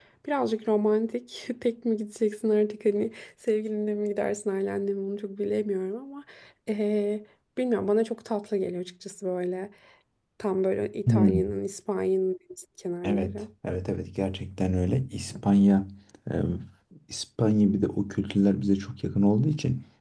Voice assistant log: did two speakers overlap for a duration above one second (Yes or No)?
No